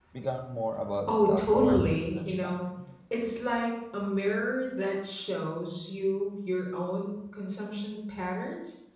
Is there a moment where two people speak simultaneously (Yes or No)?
Yes